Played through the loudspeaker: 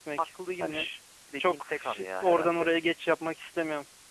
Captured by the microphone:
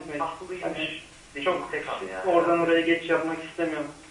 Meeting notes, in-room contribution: none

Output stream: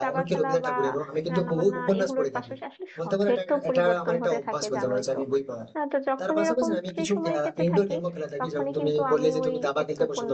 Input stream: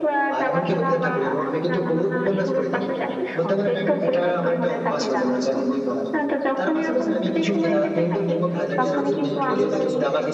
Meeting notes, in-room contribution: present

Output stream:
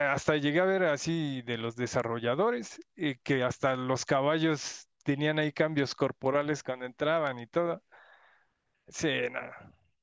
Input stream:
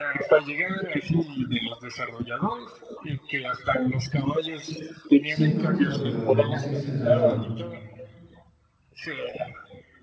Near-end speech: present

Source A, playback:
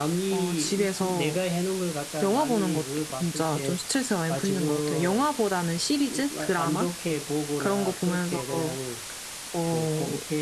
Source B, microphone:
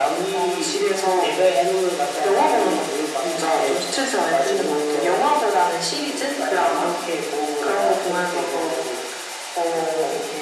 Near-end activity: none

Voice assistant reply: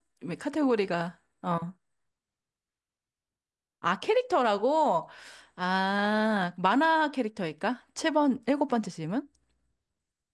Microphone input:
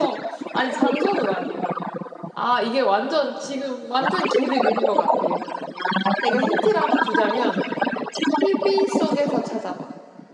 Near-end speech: present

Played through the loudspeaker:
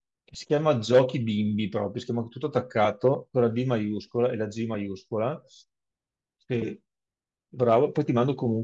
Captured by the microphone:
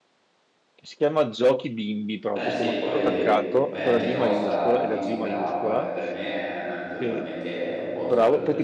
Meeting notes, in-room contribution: present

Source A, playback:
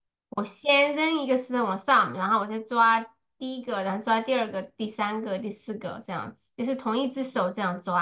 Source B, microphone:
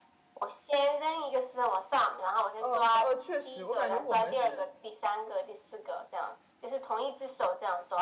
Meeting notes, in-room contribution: present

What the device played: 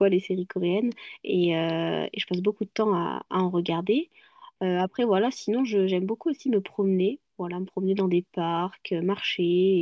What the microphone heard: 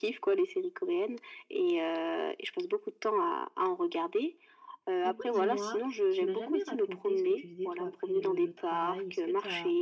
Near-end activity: present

